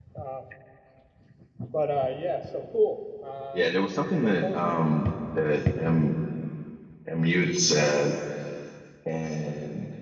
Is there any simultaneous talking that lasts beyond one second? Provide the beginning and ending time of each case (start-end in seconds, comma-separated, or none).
3.5-4.8